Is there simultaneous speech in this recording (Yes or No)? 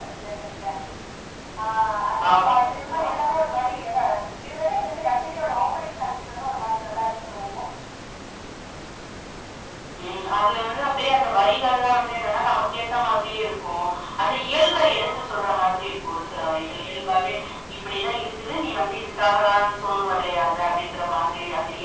Yes